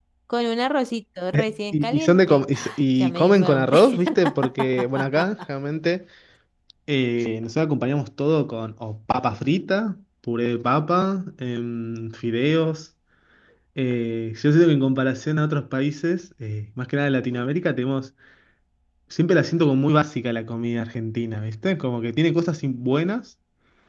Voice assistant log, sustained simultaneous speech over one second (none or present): present